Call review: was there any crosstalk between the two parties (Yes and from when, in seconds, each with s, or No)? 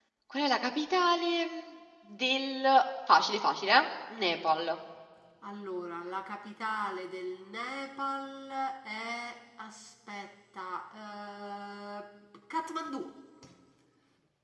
No